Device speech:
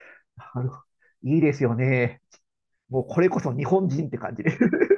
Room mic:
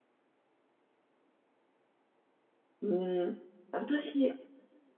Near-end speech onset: 2.8 s

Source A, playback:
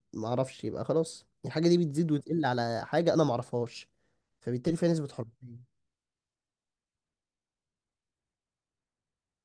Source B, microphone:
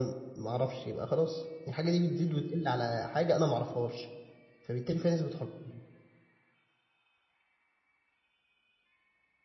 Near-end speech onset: none

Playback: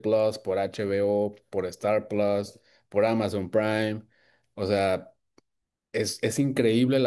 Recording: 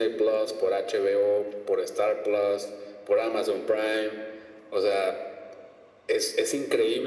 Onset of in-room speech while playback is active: none

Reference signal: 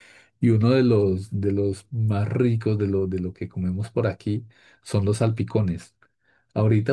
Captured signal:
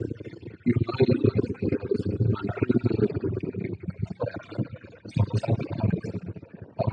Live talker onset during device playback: none

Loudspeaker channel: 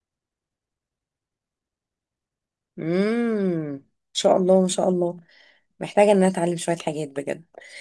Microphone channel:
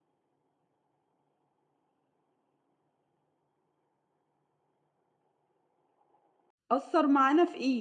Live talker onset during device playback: 6.7 s

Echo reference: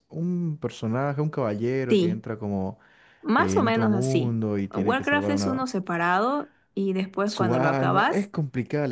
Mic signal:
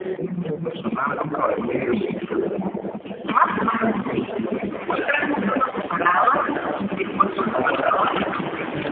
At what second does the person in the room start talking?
none

